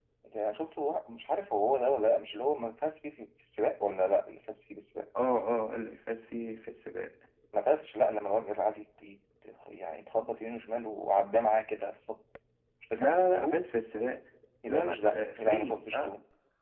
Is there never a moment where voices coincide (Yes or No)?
No